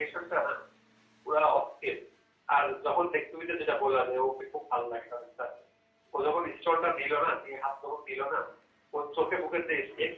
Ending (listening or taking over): listening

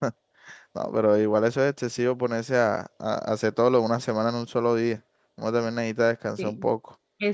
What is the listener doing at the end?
taking over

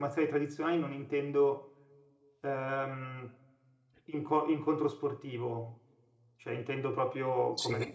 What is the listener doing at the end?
taking over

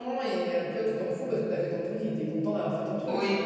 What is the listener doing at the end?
taking over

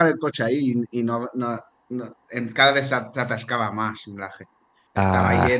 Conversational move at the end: listening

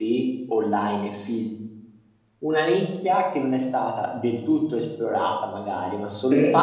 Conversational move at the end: listening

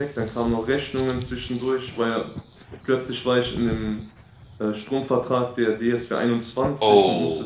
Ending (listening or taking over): listening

